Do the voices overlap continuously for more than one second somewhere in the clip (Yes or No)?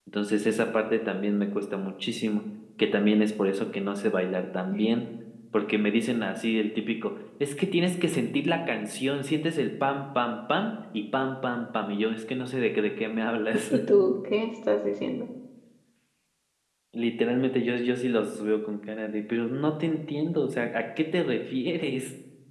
No